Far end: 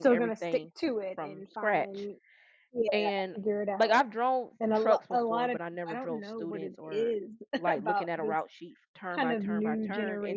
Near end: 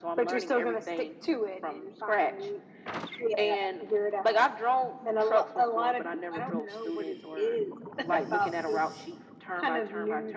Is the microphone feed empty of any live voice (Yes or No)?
Yes